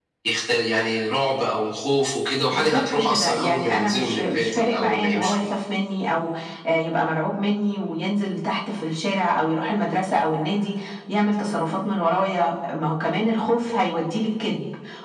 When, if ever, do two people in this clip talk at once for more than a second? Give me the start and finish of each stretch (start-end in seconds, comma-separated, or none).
2.5-5.4